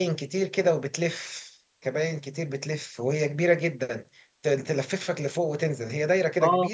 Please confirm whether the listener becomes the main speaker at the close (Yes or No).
Yes